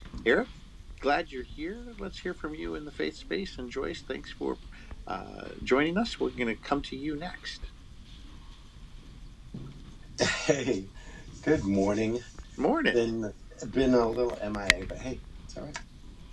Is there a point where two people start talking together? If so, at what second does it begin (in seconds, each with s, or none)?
none